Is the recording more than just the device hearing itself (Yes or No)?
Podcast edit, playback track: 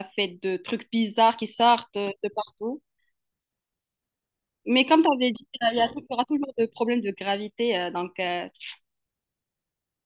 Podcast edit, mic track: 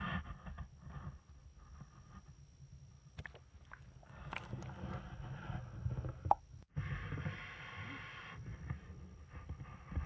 No